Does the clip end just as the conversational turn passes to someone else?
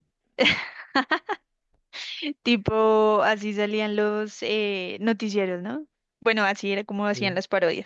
No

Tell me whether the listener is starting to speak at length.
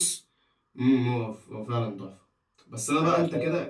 No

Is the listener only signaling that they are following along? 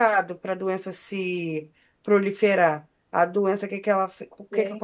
Yes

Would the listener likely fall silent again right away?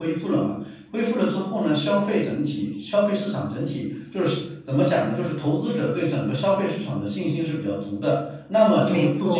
Yes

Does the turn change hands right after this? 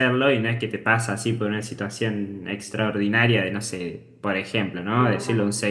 No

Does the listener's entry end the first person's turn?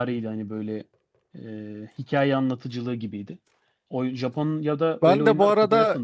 Yes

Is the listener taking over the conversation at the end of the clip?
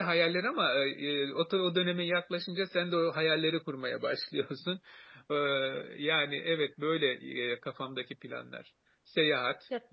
No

